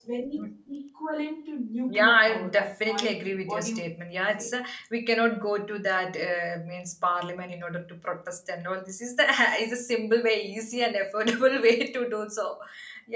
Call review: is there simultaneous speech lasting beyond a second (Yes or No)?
Yes